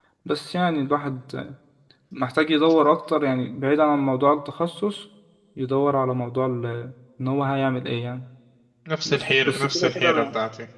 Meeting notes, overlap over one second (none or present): present